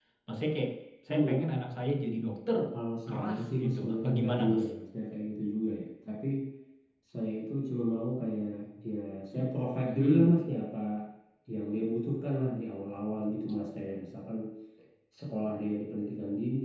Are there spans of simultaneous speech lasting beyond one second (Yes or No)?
Yes